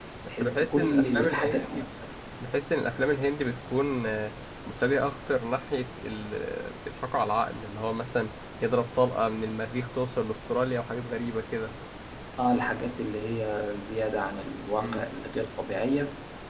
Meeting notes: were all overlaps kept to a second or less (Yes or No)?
No